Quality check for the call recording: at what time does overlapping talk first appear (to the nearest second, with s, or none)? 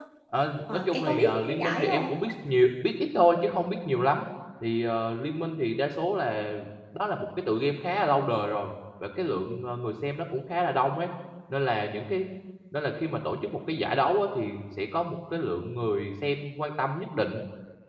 1 s